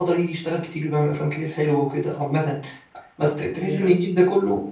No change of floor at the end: Yes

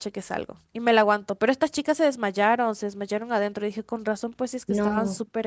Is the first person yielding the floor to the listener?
Yes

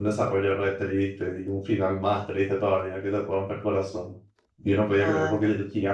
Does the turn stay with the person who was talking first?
Yes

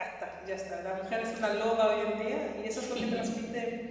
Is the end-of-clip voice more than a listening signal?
No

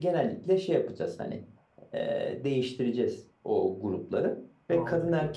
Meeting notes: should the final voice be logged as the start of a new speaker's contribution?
No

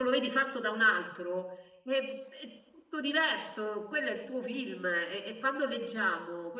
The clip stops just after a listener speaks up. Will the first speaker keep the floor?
Yes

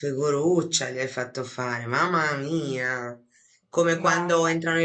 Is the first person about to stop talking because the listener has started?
No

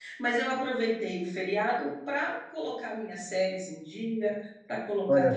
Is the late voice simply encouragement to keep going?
Yes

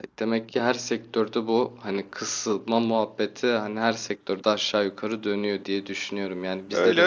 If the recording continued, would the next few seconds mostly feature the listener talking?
No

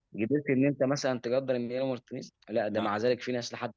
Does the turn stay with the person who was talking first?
Yes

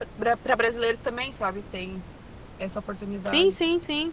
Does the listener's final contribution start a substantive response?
Yes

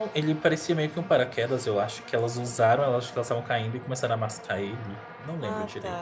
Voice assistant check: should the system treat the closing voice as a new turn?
Yes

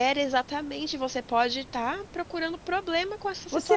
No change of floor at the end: No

